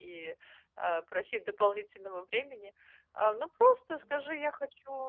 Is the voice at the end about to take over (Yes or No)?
No